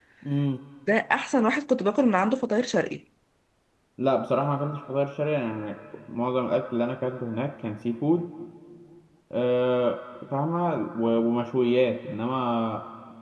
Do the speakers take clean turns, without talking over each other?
Yes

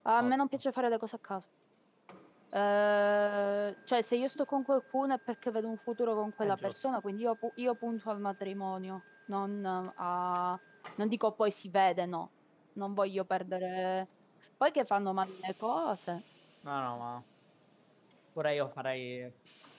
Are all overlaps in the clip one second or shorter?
Yes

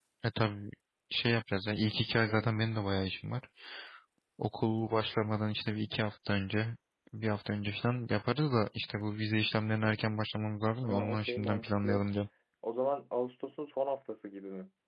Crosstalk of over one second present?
Yes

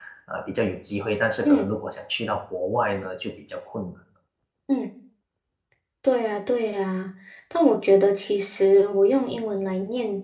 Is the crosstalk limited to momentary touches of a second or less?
Yes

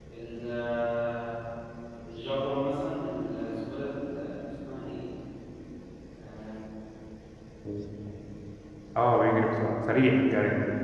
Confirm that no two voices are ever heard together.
Yes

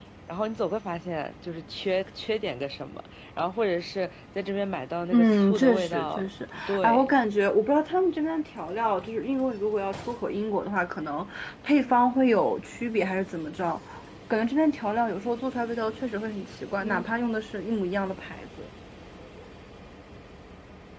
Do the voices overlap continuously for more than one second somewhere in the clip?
Yes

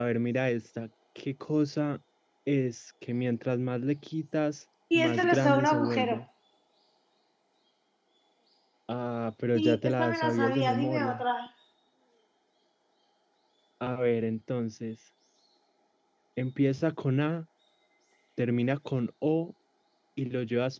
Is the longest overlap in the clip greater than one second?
Yes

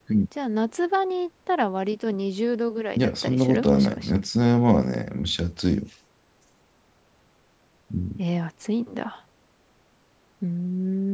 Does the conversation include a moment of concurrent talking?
Yes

